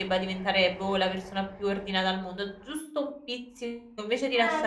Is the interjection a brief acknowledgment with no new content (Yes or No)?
Yes